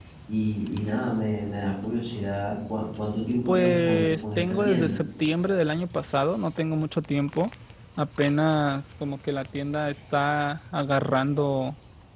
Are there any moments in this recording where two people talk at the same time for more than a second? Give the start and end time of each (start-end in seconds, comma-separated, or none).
3.5-5.0